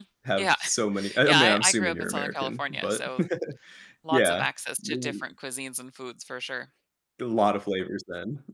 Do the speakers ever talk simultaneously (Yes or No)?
Yes